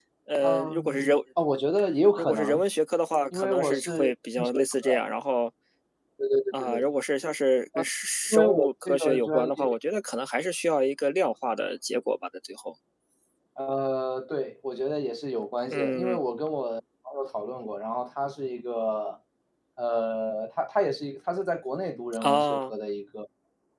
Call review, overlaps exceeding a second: present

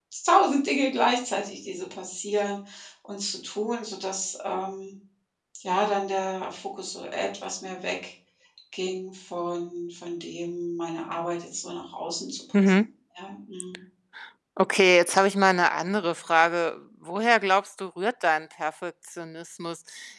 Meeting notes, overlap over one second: none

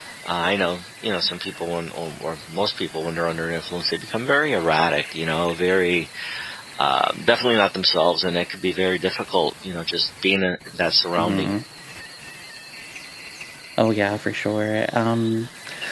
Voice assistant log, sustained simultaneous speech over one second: none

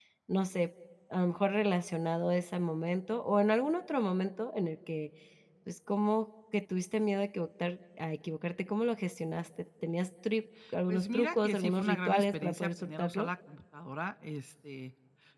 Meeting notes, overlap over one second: present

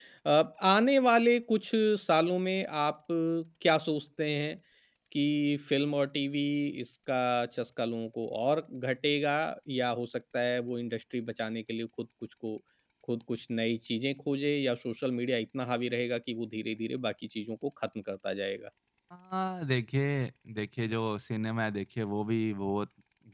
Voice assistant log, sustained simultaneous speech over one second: none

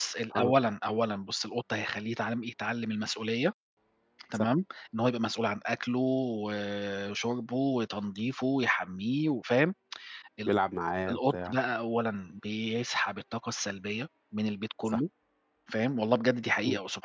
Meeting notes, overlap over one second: none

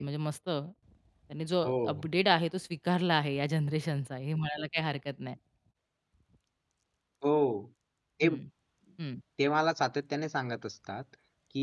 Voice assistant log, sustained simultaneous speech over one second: none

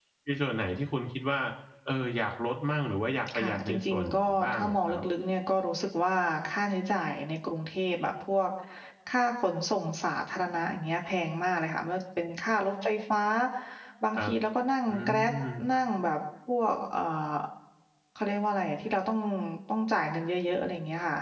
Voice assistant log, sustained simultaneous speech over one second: present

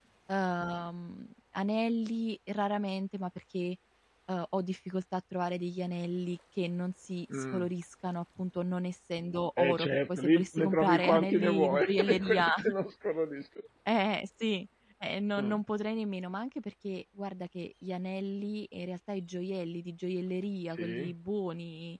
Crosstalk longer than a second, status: present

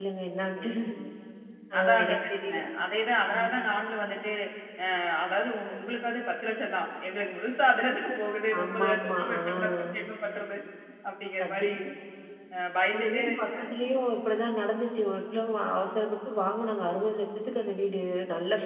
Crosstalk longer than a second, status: present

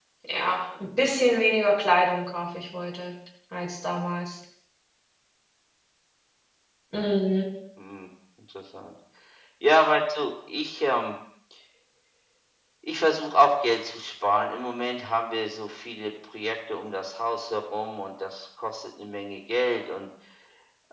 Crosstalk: none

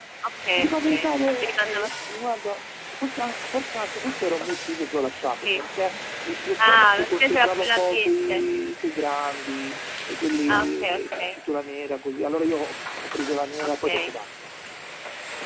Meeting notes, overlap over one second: present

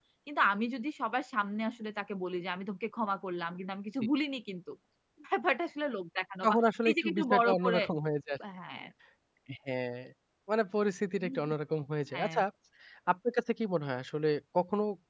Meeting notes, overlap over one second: present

